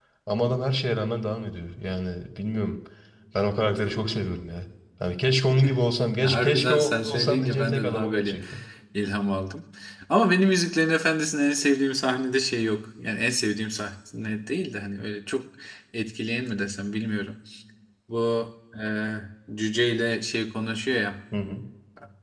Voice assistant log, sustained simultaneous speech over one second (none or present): present